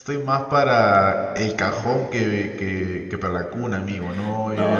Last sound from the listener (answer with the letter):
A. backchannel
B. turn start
B